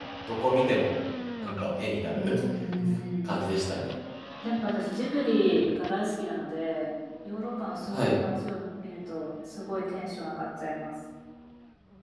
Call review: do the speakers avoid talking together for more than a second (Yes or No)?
Yes